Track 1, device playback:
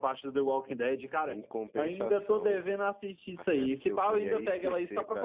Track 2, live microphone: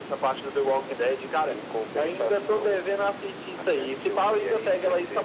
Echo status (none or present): present